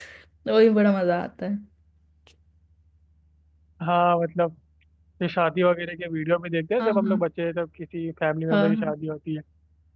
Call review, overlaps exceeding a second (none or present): none